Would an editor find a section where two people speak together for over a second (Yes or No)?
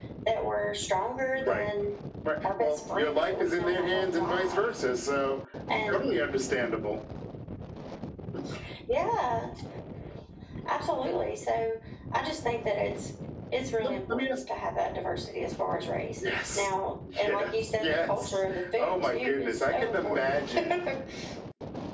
Yes